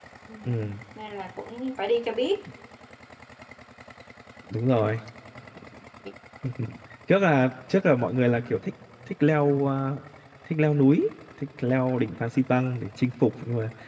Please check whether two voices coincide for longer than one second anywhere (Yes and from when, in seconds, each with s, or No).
No